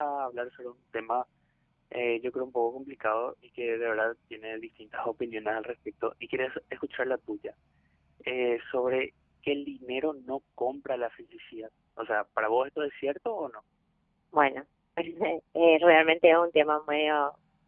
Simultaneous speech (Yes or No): No